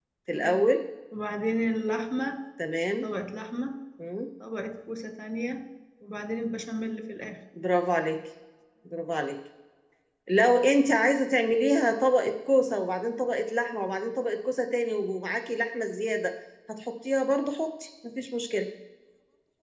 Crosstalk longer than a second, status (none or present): none